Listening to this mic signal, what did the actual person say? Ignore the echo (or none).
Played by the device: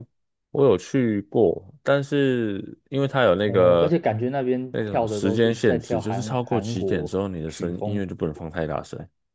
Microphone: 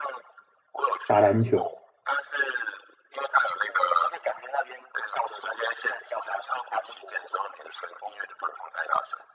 打篮球，